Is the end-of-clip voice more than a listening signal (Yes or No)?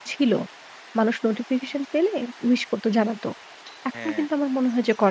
No